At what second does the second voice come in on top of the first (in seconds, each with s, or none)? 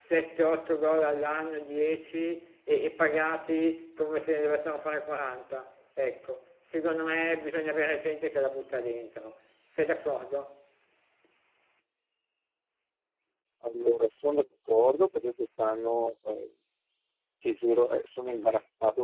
none